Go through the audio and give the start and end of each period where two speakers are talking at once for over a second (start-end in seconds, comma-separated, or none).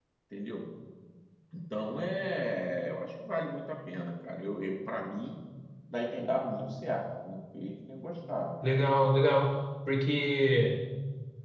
none